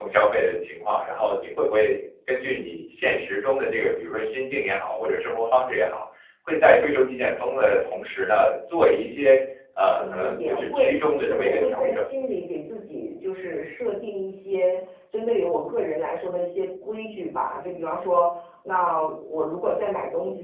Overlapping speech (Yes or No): Yes